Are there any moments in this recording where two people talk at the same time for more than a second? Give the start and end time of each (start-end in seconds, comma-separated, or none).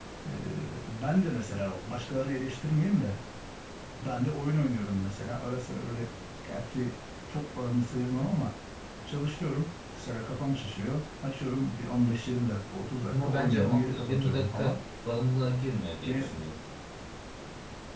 13.1-14.8